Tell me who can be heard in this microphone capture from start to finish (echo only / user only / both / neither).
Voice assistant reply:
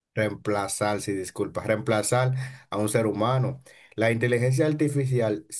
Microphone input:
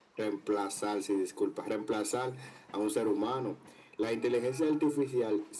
echo only